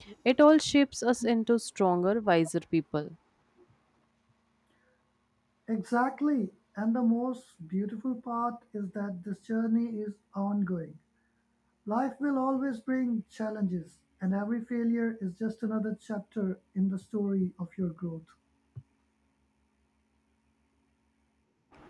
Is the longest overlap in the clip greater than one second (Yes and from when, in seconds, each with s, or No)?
No